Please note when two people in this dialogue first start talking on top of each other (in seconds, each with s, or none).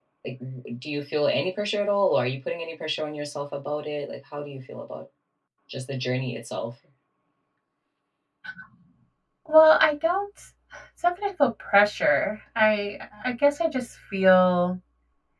none